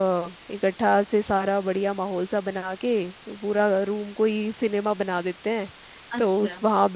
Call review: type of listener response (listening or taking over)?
listening